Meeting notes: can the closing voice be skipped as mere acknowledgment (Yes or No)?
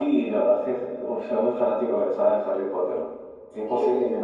No